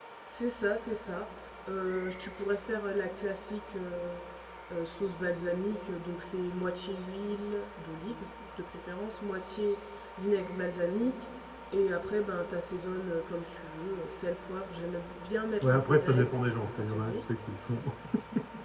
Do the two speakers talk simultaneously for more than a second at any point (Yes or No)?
Yes